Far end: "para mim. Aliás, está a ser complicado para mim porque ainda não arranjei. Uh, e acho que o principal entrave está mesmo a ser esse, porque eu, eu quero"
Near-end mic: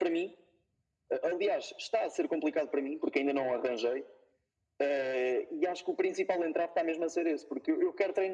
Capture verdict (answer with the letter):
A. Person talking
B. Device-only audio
B